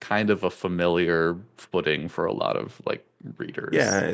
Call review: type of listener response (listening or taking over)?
taking over